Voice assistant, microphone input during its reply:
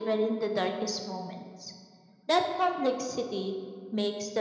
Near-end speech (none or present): none